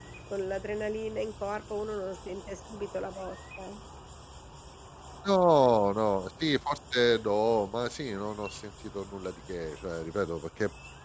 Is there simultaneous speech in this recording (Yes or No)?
No